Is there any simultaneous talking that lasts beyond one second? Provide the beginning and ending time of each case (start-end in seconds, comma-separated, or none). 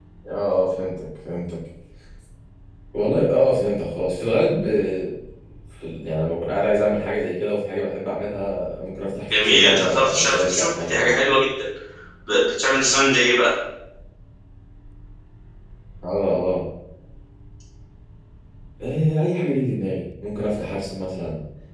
9.4-11.1